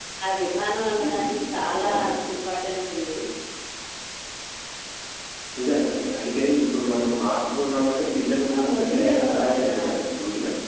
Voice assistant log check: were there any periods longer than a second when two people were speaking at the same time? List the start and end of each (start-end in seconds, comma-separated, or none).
8.5-9.8